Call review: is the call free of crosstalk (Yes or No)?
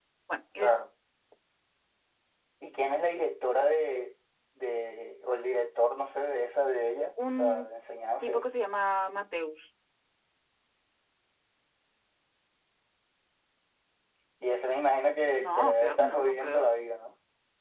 No